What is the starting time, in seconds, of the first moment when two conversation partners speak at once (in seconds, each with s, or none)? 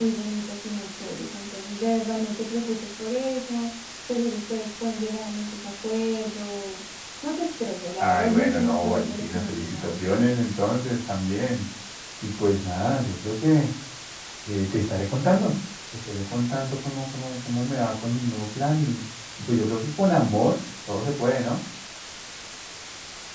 8.0 s